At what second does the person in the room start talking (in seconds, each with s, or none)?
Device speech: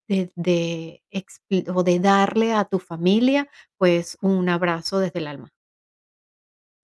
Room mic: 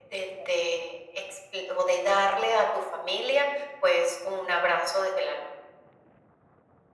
none